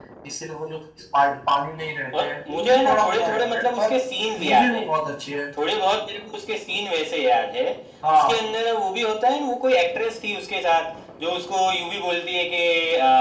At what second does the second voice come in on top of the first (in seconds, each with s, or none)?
2.2 s